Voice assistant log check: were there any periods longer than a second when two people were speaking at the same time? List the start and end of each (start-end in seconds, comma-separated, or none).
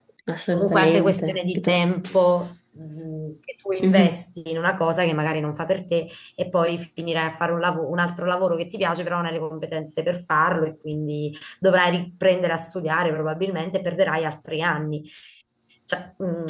0.5-1.8